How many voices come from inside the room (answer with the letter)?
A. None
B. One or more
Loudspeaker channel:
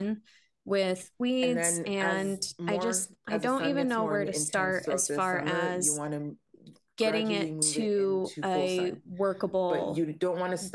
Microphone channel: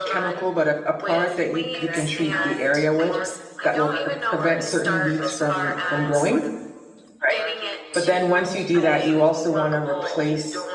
B